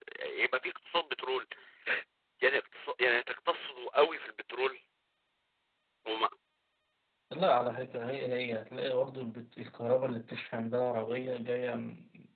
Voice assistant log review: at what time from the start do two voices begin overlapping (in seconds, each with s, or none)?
none